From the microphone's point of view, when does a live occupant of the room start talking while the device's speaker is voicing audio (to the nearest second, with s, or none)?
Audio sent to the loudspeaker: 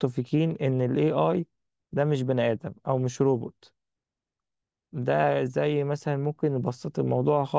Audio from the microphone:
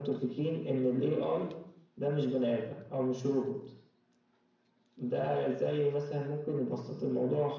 none